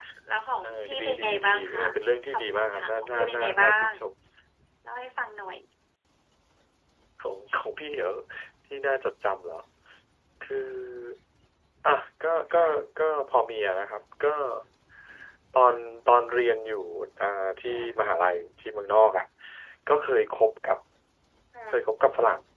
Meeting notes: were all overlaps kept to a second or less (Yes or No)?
No